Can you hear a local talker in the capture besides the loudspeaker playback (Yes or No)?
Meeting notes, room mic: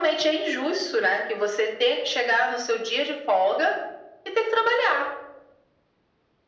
No